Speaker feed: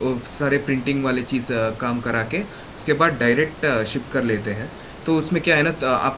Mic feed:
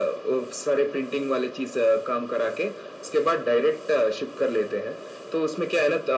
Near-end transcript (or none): none